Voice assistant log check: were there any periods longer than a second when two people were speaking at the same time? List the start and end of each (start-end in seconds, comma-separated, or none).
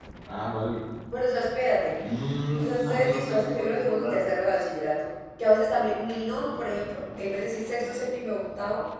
2.6-4.3